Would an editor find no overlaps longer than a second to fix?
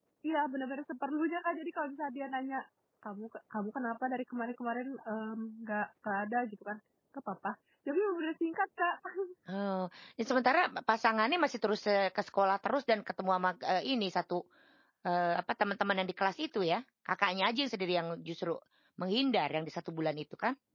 Yes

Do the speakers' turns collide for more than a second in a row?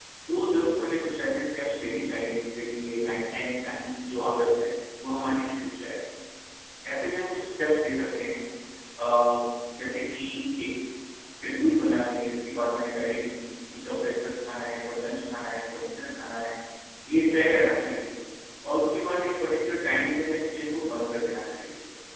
No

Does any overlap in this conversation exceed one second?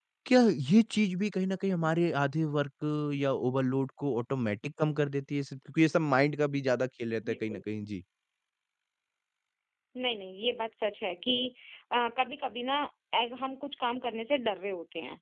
No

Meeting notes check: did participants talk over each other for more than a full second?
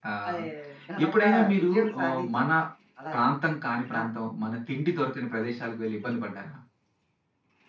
Yes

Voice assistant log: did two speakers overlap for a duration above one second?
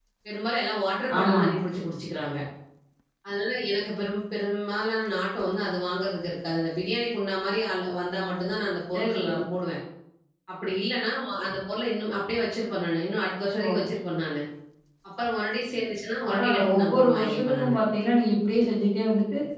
Yes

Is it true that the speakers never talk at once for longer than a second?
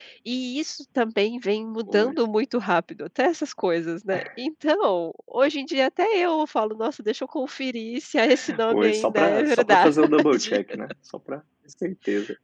No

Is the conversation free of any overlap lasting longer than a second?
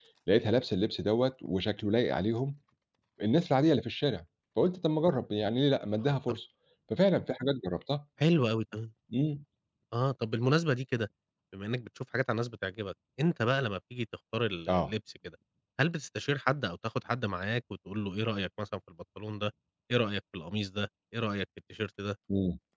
Yes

